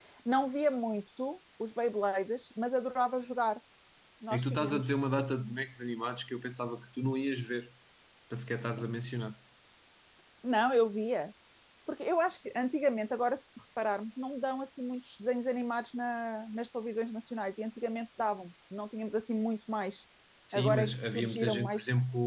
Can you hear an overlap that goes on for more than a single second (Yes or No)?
Yes